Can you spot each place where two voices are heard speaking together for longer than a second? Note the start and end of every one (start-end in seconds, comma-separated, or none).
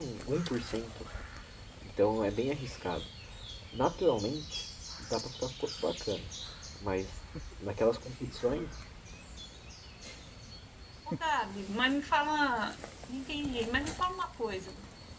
none